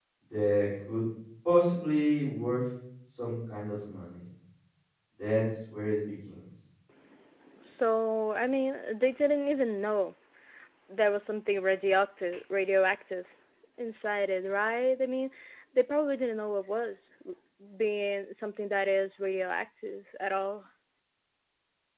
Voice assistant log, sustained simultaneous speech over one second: none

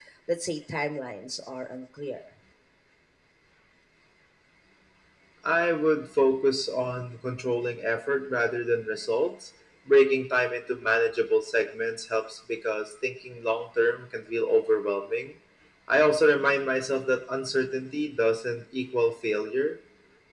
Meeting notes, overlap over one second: none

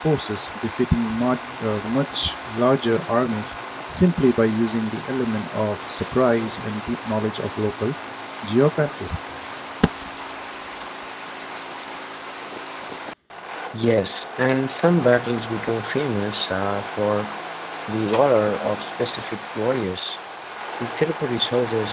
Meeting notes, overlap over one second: none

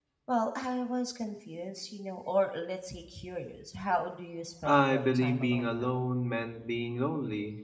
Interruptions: present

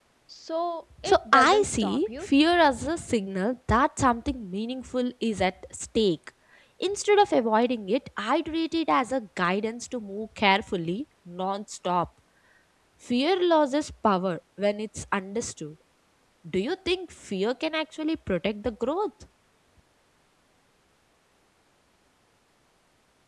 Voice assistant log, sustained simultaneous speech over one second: present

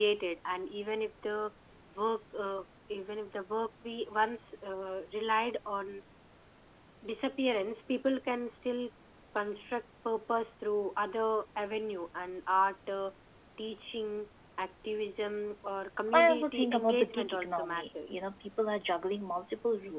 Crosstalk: present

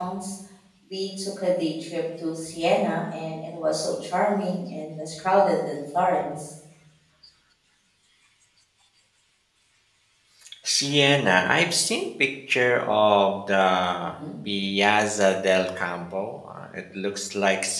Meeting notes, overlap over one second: none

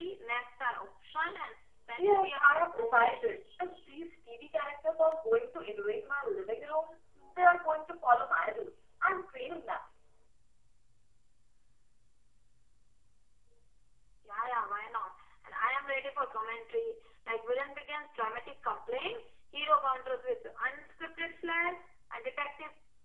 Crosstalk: present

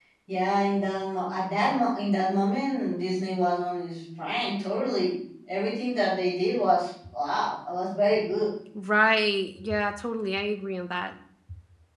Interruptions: none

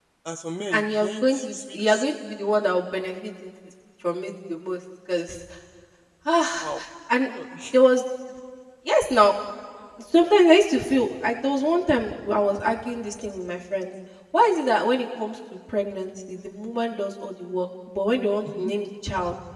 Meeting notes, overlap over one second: present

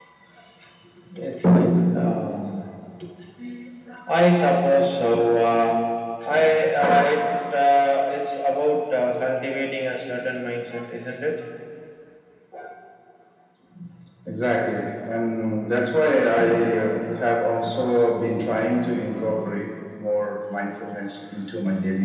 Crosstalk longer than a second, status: none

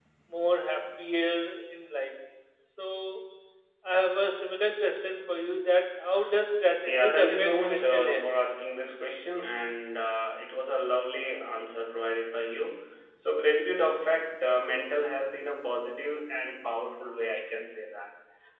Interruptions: present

